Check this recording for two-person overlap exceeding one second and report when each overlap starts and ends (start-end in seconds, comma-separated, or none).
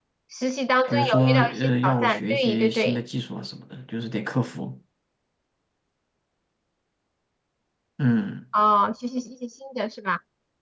0.9-3.0